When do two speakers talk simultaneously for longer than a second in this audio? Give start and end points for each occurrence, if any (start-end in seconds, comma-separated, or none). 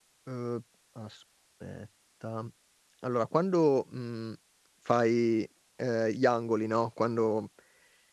none